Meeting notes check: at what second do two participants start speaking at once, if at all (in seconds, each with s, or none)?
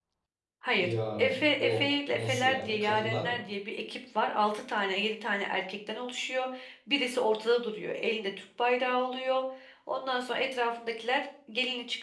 0.8 s